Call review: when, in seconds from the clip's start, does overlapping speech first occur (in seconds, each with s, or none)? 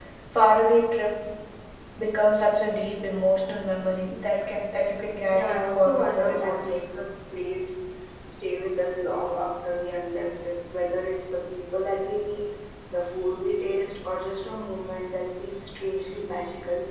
5.3 s